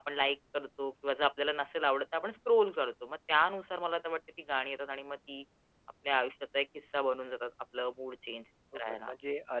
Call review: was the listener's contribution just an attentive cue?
No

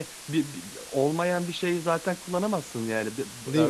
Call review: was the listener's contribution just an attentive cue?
Yes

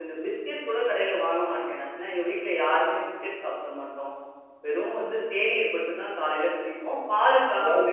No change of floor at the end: Yes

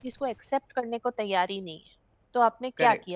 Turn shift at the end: Yes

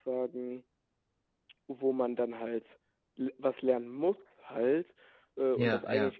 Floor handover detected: No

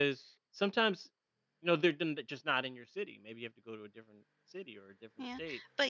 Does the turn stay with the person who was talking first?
No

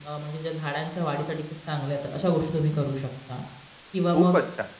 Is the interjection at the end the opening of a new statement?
Yes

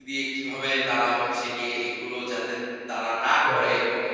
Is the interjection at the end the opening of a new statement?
No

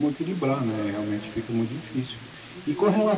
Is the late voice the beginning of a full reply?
Yes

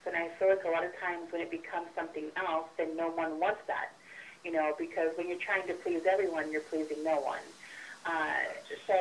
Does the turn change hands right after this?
No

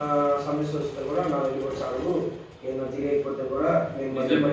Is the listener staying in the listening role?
Yes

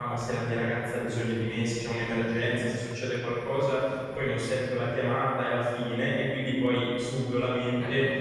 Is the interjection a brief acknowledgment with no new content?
Yes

